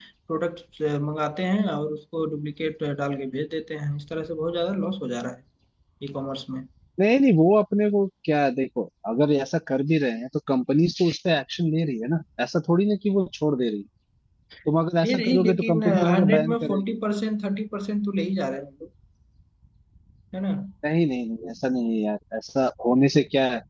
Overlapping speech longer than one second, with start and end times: 15.0-16.8

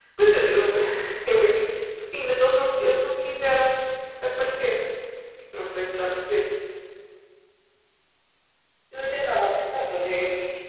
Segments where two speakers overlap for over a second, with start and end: none

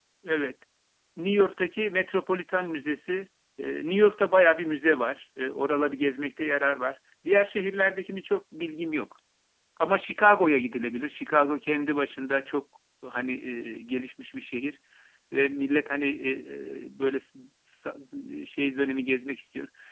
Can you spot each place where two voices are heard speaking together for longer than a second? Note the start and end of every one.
none

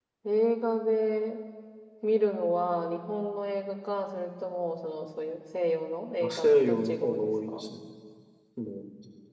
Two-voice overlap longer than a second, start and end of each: 6.2-7.6

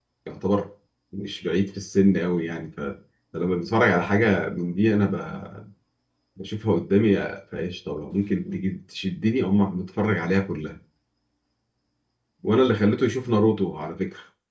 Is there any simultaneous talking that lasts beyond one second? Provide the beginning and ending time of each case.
none

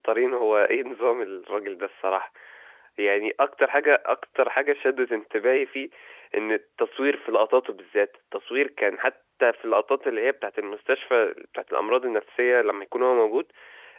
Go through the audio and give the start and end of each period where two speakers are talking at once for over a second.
none

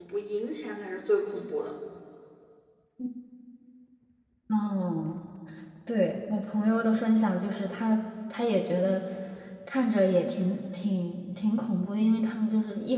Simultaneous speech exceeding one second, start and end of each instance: none

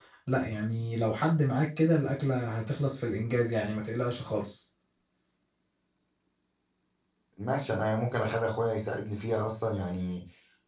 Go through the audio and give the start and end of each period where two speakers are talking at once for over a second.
none

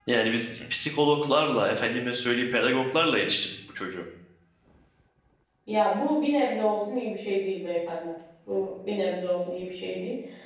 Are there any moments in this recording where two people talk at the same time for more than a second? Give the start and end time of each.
none

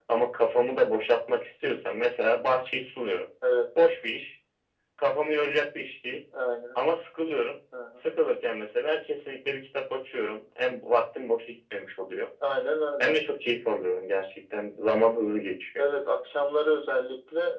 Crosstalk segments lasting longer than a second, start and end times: none

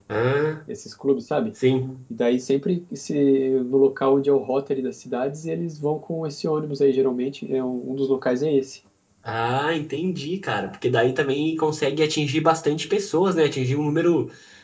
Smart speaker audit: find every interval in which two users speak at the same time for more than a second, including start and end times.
none

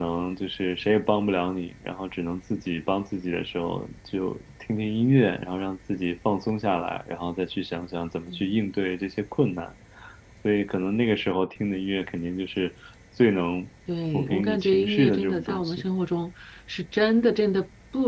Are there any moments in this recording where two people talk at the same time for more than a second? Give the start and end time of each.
14.1-15.8

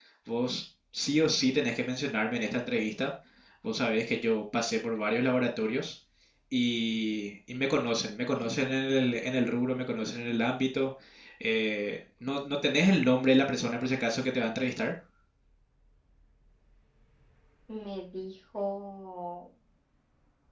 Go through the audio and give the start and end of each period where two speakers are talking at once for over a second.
none

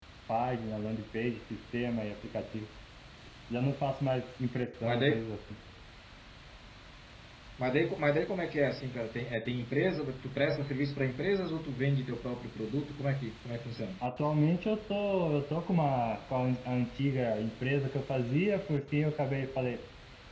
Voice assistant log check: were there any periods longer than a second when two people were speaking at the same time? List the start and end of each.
none

